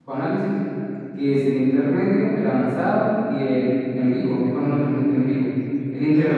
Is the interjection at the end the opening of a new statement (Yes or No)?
Yes